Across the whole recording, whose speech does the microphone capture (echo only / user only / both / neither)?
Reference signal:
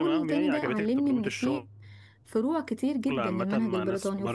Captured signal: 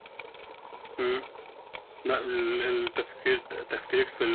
user only